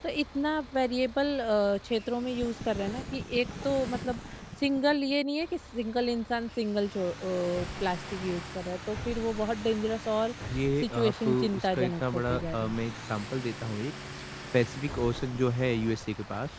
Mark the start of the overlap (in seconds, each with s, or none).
10.8 s